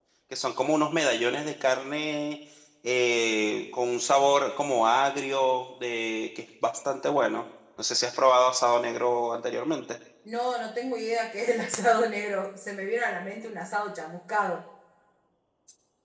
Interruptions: none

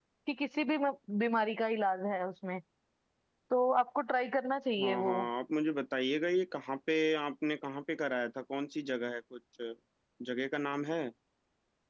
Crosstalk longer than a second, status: none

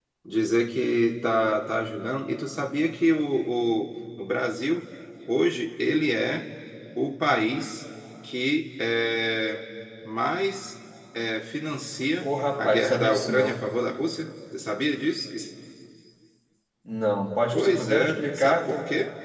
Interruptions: present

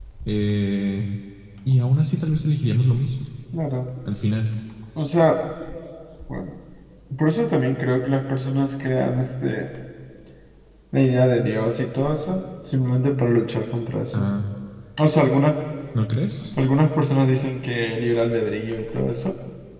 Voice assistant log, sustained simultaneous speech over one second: none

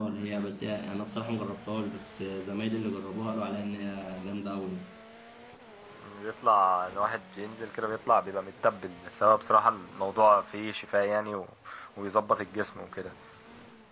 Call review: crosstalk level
none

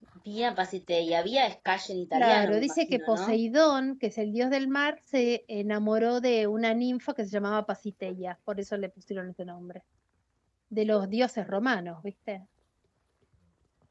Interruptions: present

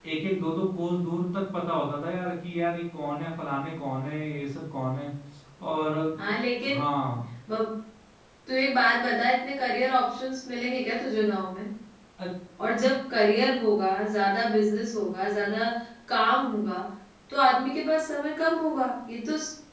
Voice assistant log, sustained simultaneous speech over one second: none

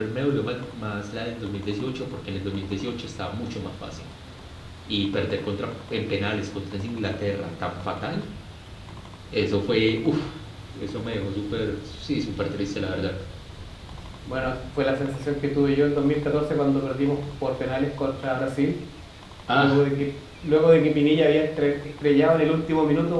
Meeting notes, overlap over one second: none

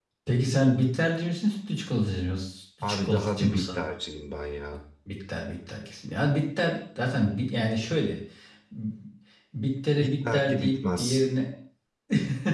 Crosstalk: present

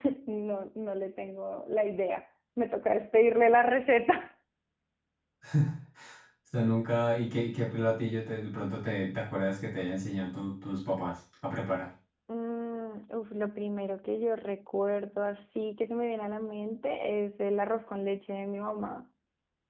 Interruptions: none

